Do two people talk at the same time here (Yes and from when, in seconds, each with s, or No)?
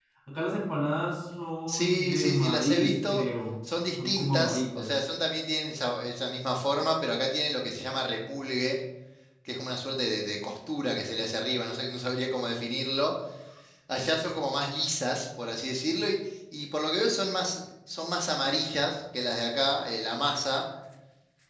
Yes, from 1.7 s